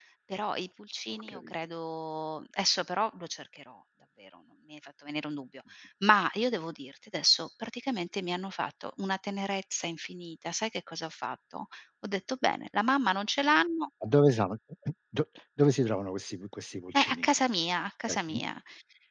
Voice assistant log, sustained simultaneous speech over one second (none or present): none